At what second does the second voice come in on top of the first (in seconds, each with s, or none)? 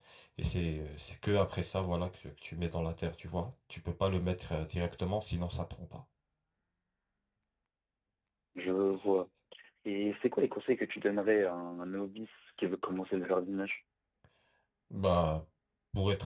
none